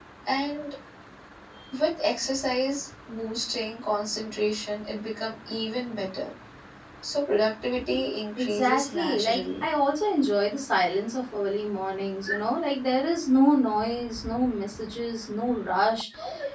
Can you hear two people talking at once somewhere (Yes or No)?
Yes